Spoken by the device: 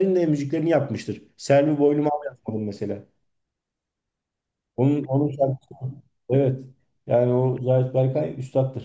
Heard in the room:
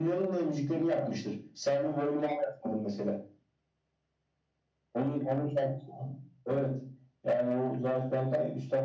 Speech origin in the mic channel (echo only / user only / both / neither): echo only